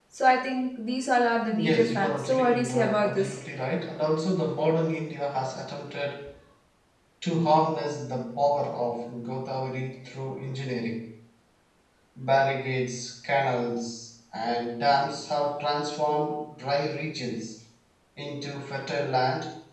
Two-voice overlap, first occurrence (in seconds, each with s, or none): 1.5 s